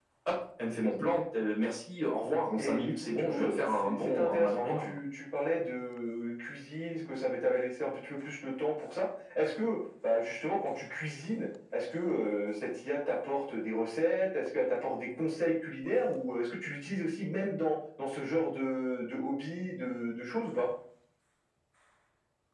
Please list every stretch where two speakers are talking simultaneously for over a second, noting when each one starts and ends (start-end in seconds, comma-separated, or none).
2.5-4.9